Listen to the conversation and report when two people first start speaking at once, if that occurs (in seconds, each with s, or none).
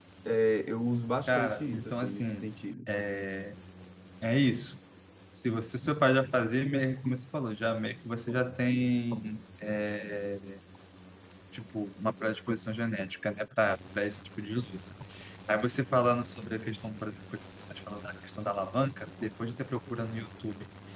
1.3 s